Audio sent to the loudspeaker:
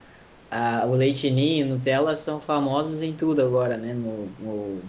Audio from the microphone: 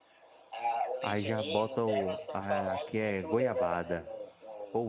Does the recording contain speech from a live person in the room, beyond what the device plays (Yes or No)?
Yes